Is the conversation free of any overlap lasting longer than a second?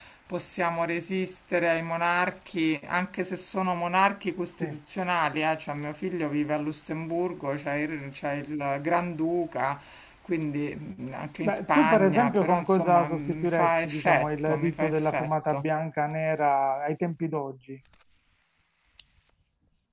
No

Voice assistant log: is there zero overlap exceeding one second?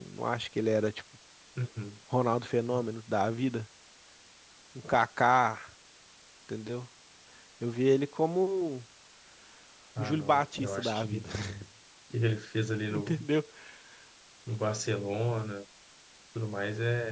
No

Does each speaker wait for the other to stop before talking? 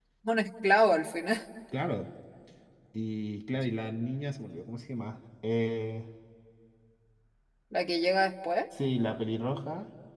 Yes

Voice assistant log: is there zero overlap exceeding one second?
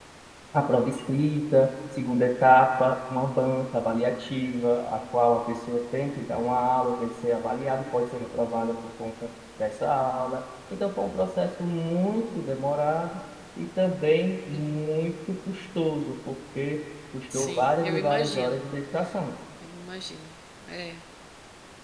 No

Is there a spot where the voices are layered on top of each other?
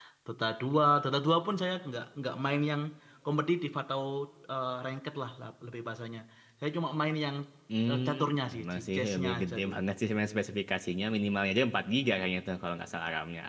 Yes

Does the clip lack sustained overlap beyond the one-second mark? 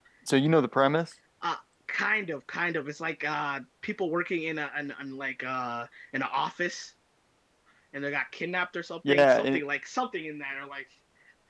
Yes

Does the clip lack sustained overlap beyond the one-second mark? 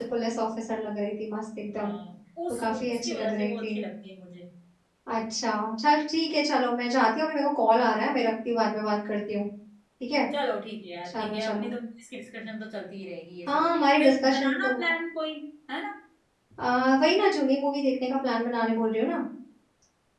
No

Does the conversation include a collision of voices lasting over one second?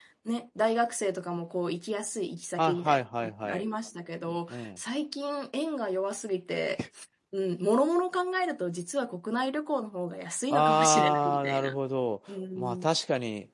Yes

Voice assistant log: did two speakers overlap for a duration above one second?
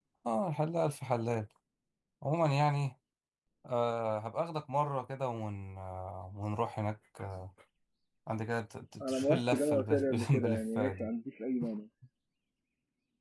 Yes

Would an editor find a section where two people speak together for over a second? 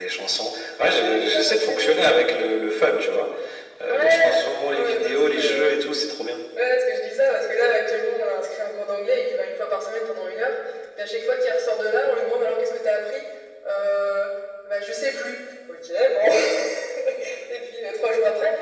Yes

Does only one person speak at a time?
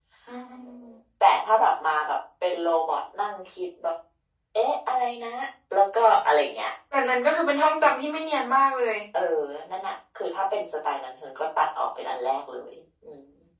Yes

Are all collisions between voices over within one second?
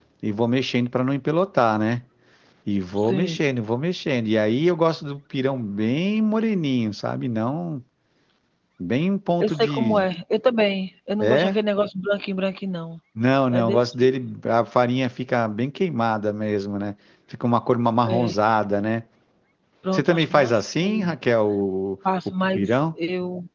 No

